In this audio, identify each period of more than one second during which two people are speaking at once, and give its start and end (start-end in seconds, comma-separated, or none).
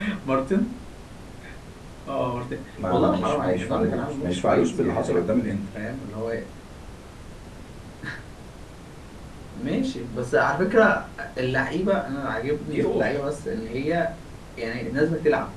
2.9-5.8